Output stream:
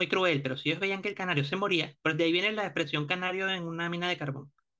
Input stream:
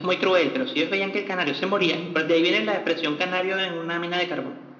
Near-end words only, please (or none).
ujú.